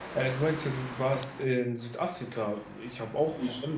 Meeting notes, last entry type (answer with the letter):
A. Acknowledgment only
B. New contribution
A